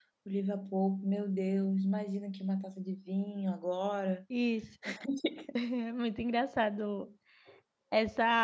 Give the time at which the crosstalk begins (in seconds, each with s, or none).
none